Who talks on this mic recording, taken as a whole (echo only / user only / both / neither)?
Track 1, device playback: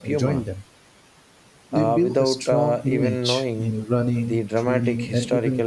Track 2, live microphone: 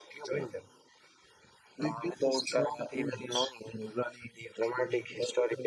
echo only